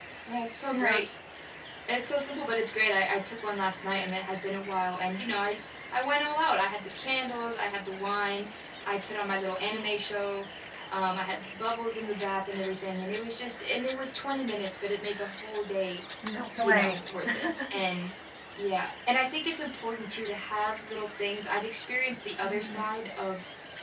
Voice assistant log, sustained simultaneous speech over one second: none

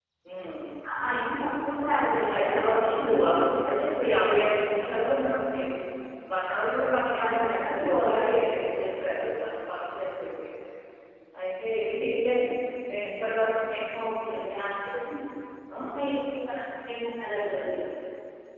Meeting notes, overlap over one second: present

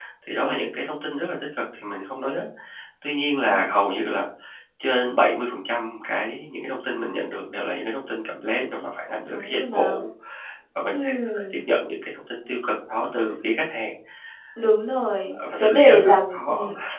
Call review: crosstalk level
present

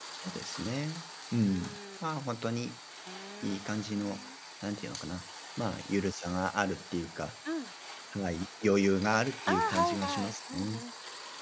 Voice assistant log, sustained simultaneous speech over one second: present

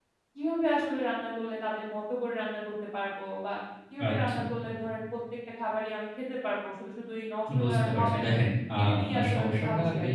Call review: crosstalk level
present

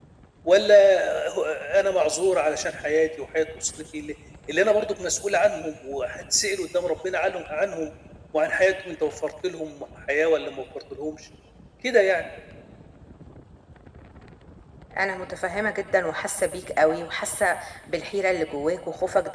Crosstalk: none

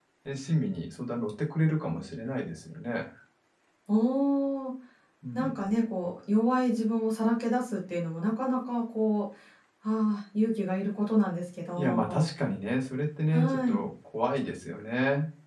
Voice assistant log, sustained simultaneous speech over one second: none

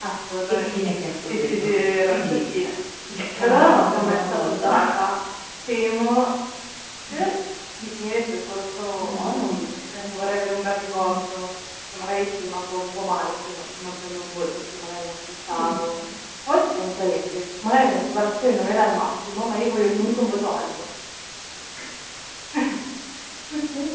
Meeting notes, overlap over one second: present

